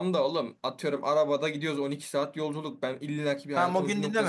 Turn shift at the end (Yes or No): Yes